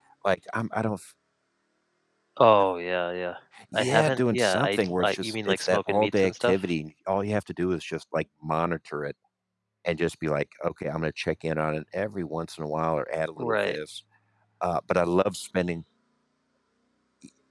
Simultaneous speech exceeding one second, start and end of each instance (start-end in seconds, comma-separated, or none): 3.7-6.6